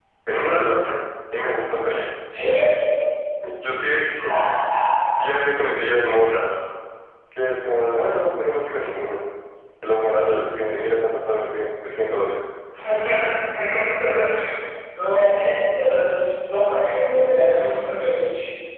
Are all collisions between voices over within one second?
Yes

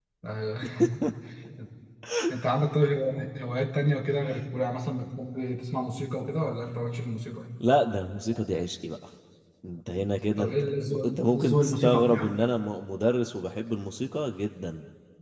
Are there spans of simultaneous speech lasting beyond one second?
Yes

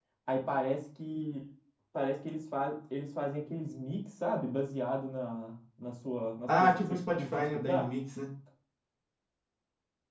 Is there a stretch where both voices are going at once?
Yes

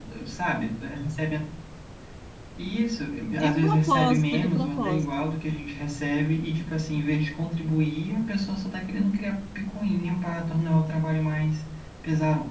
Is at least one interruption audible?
Yes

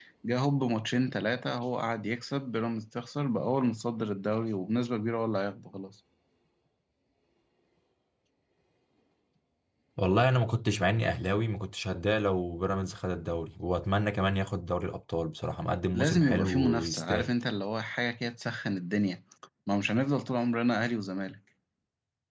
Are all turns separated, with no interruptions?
No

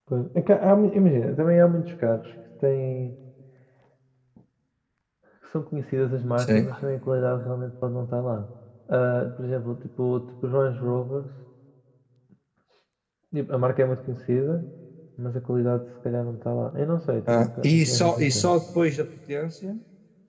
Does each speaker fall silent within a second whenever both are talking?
No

